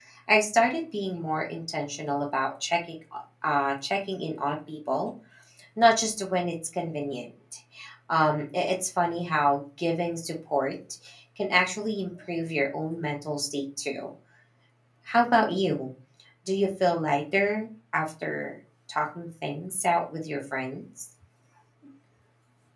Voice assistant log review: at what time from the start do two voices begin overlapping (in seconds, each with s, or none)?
none